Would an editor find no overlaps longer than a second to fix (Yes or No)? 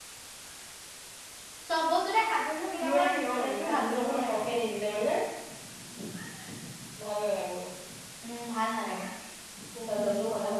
No